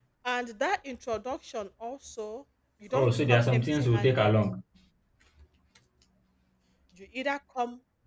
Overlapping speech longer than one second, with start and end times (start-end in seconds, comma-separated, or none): 2.9-4.3